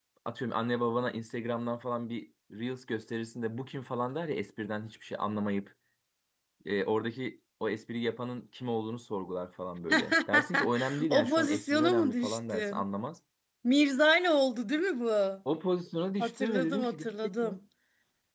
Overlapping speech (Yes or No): Yes